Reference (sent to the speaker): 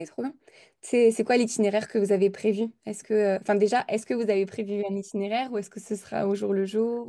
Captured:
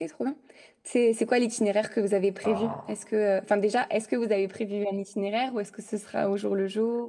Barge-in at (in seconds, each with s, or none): 2.4 s